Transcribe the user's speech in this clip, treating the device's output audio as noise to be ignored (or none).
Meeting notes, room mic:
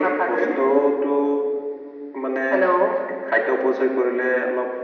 none